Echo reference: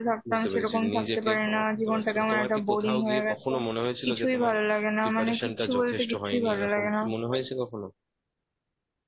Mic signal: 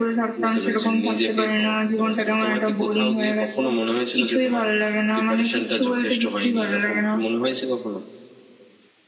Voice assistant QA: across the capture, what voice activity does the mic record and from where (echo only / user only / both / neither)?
echo only